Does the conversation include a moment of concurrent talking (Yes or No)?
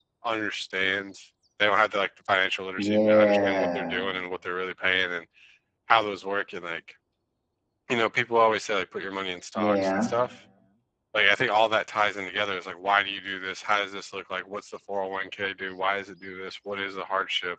Yes